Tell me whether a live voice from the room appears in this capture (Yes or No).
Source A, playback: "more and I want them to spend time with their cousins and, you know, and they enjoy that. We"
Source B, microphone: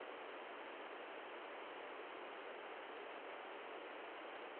No